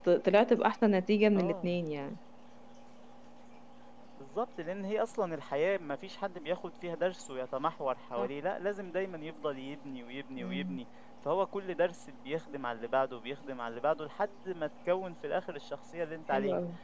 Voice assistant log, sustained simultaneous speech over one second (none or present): none